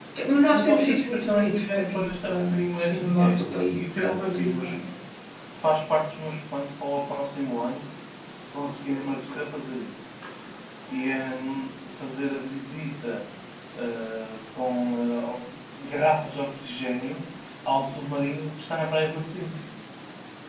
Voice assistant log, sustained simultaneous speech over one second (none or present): present